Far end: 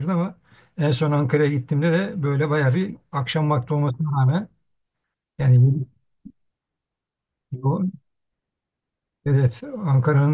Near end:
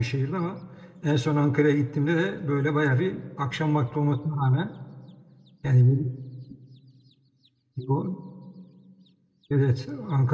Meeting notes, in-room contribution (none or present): none